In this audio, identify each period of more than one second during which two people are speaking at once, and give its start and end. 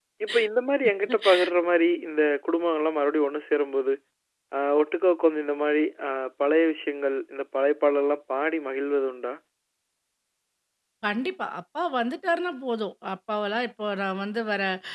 none

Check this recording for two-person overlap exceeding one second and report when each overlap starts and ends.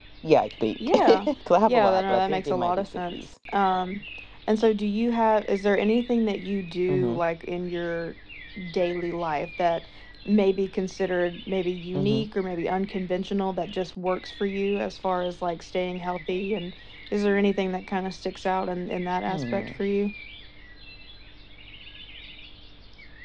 1.7-3.3

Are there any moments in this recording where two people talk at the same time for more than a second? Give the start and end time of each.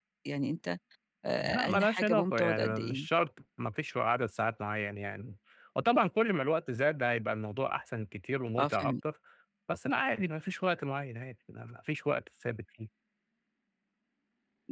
1.4-3.1

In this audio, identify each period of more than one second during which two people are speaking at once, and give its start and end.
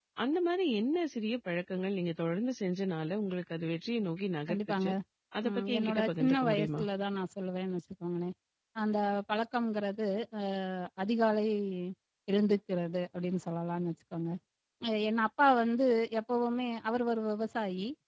5.5-6.8

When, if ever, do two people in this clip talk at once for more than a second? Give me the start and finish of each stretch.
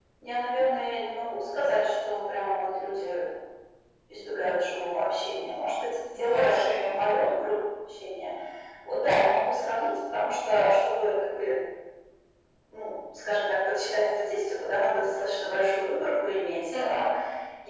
6.1-7.4

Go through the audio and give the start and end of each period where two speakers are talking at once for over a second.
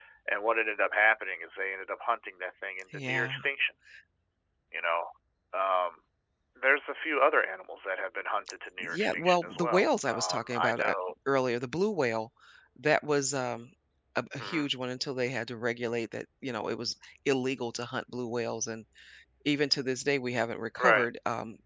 8.8-10.9

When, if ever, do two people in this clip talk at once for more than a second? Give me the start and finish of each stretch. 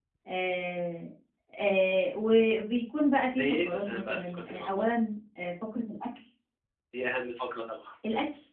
3.3-4.8

